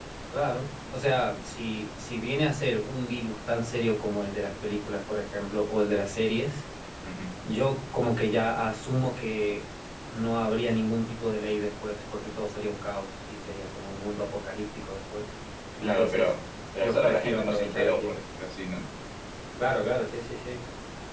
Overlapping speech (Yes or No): Yes